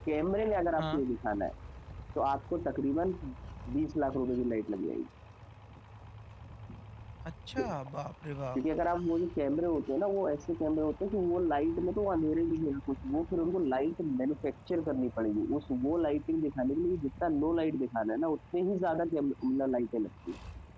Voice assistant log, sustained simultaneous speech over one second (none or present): none